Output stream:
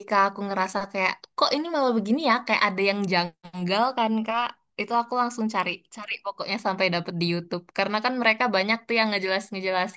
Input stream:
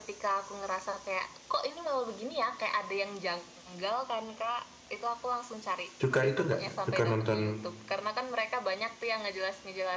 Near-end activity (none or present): present